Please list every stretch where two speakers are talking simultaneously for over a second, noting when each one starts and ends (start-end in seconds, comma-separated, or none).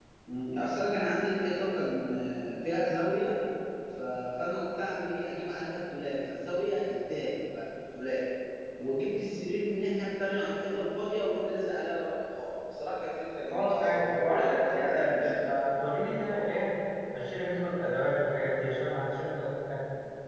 13.5-15.5